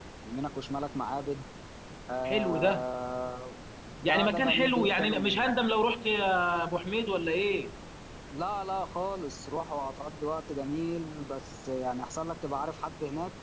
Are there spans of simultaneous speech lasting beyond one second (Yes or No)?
Yes